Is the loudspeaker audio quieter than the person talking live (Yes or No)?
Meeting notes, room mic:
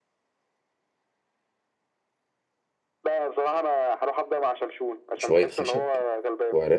Yes